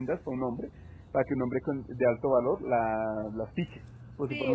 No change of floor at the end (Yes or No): No